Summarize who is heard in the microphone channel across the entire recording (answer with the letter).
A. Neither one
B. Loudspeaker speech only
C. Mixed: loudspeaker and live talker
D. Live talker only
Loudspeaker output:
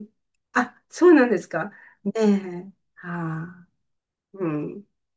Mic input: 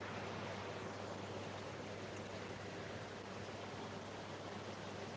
A